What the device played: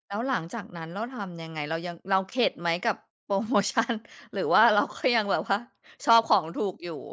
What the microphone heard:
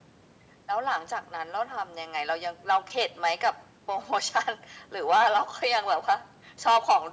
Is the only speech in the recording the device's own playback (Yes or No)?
Yes